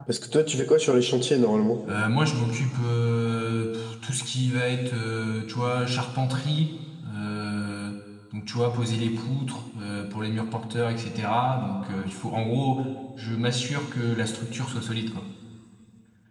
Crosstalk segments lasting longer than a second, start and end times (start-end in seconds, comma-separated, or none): none